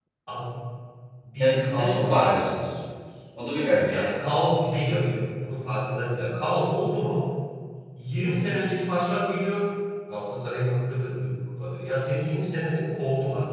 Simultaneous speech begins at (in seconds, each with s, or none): 1.4 s